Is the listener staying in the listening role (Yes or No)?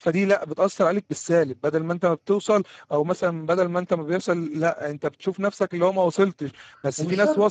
Yes